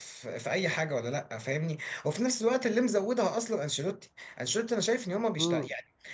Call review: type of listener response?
listening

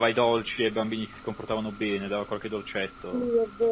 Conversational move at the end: taking over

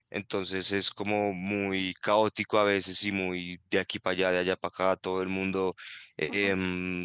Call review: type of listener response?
listening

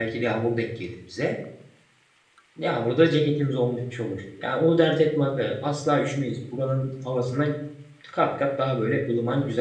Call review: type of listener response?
taking over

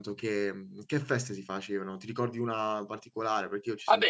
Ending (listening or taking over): taking over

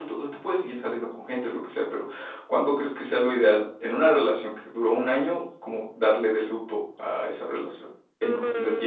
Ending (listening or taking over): taking over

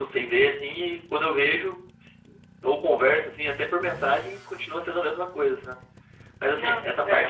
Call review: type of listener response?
listening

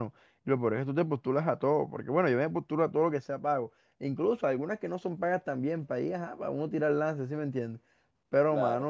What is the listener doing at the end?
listening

